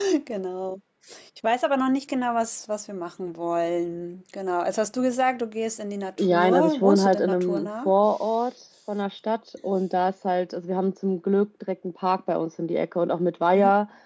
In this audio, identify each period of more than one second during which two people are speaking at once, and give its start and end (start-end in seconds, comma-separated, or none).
6.2-7.9